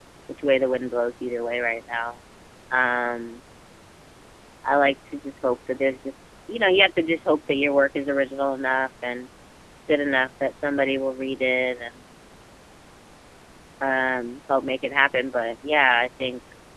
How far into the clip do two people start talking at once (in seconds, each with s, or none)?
none